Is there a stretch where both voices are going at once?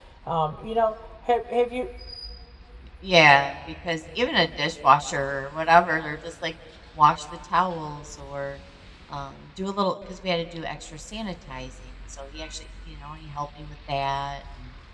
No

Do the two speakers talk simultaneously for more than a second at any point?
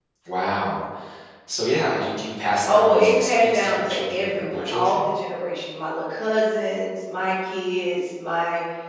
Yes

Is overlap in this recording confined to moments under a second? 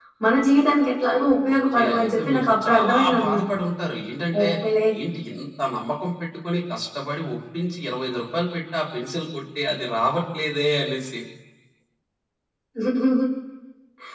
No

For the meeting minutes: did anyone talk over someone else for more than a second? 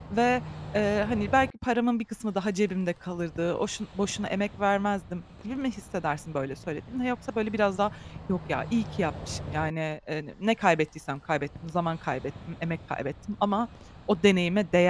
No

